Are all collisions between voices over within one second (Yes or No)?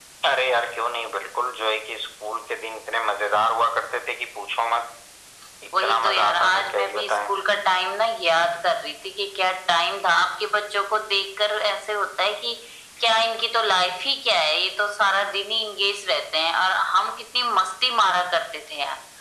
No